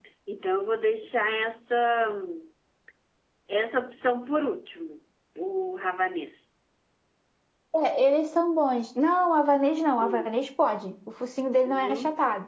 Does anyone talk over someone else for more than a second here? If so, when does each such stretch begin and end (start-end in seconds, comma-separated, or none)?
none